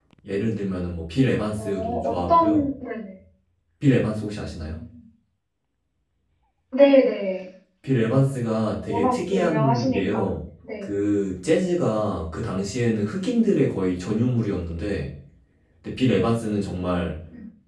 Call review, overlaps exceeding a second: present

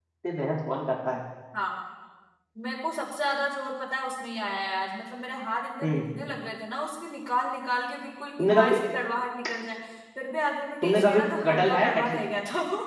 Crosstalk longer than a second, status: present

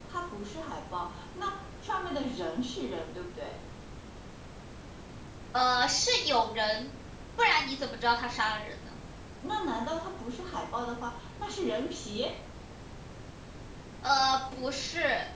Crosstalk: none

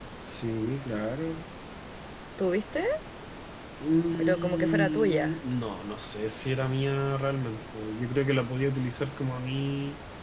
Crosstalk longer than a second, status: present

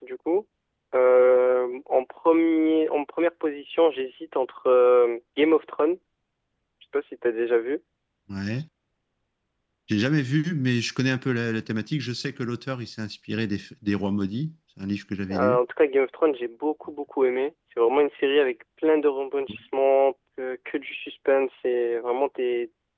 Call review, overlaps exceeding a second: none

